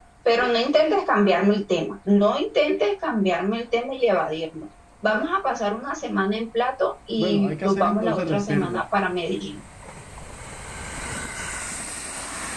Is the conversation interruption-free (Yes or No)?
No